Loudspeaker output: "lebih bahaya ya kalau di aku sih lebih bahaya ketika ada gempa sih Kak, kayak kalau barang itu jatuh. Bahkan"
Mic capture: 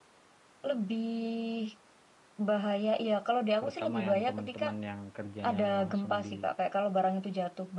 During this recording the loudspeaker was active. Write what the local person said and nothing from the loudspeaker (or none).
Terutama yang teman-teman yang kerjanya langsung di